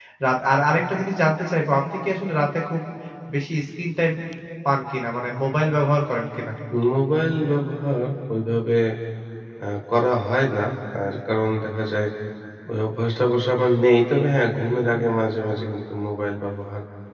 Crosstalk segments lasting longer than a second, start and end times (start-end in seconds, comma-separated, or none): none